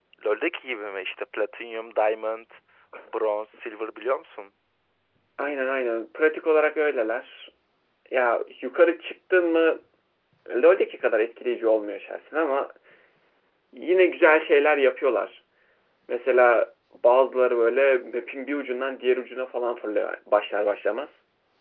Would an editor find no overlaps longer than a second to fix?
Yes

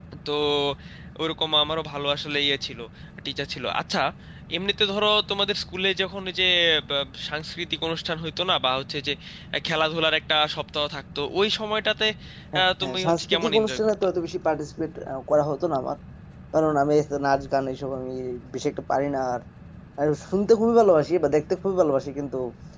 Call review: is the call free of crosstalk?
No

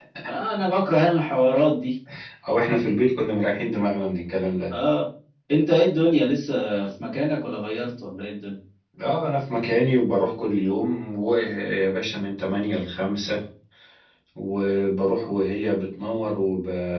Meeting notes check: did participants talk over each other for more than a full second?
No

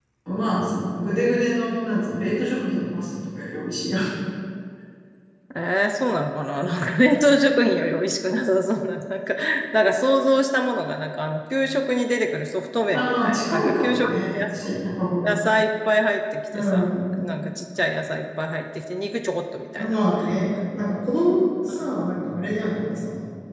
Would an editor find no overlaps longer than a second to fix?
No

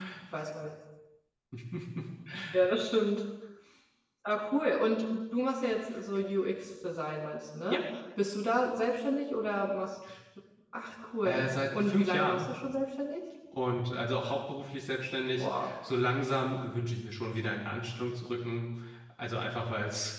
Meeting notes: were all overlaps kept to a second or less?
No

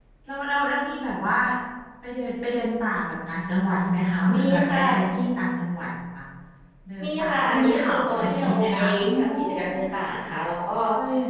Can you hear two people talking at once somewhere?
Yes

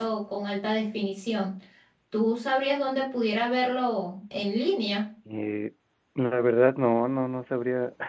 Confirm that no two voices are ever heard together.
Yes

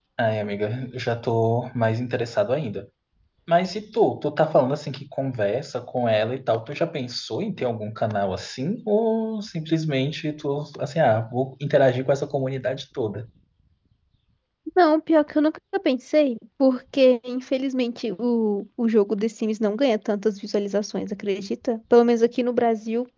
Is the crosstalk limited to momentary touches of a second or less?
Yes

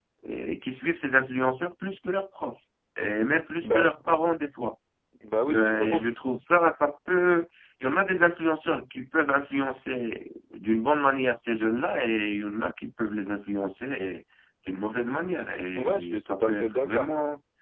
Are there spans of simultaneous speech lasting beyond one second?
Yes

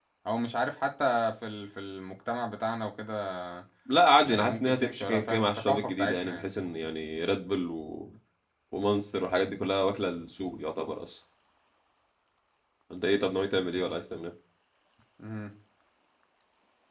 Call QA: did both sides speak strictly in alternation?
No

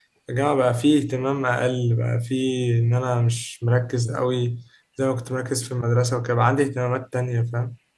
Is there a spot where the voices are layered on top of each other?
No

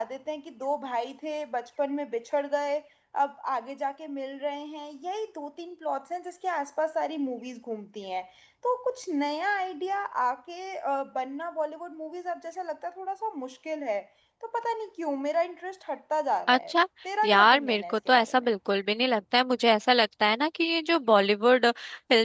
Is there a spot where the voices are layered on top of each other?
Yes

